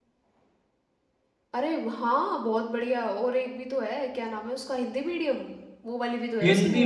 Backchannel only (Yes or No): No